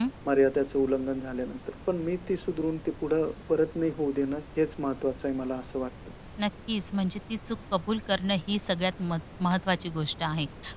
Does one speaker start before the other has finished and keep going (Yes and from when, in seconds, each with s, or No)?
No